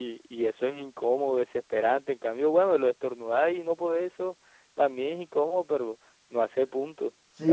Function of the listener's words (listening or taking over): taking over